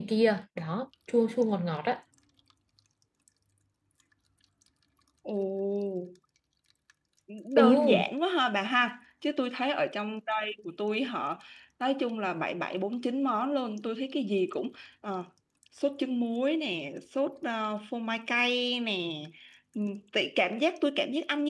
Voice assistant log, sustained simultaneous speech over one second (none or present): none